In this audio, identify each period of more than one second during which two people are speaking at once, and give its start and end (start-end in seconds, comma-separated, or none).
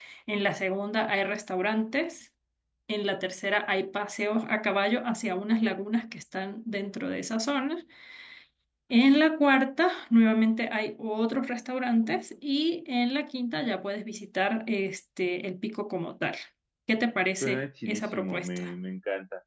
17.4-18.7